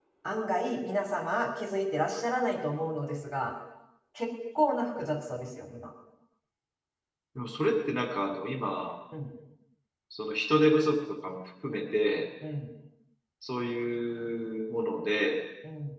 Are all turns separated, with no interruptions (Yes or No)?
Yes